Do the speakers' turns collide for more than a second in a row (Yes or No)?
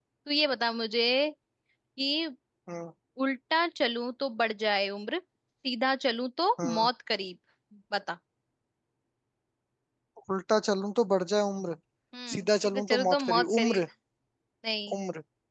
Yes